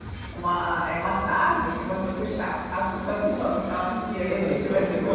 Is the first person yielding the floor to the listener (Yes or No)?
Yes